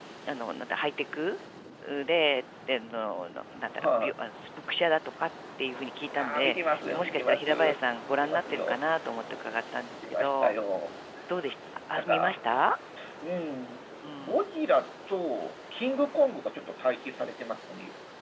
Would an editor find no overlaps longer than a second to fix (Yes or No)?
No